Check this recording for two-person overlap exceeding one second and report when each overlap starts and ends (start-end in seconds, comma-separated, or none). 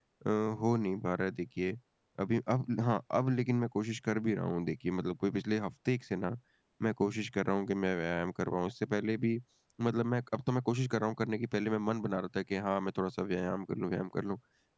none